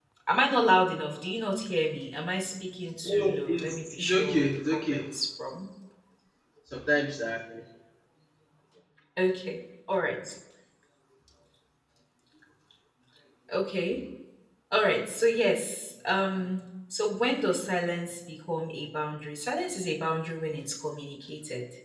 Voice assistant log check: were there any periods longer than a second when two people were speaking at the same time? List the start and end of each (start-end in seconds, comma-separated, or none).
3.0-5.0